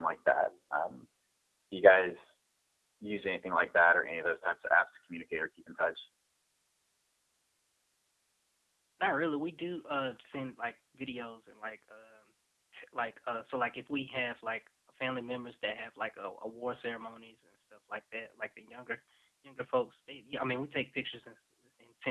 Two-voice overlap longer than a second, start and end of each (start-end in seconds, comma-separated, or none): none